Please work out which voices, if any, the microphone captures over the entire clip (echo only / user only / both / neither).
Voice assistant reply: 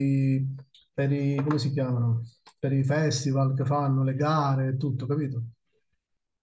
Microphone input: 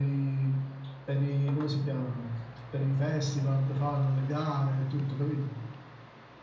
echo only